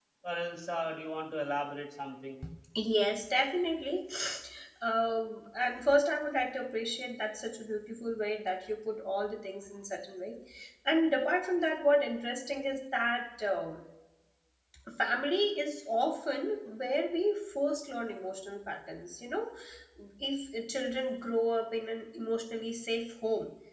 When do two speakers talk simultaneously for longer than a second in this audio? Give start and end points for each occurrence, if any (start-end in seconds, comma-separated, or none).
none